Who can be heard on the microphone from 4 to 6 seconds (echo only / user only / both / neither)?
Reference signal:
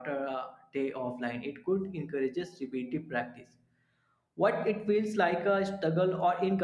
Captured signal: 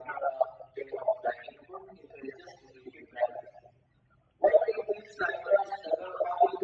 echo only